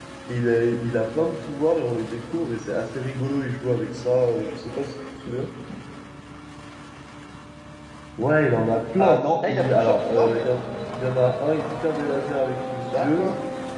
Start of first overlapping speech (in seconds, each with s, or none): 9.0 s